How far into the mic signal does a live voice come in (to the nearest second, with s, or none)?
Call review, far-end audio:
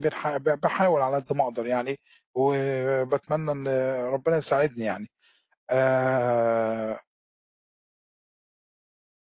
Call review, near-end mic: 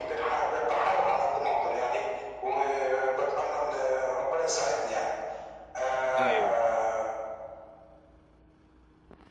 6 s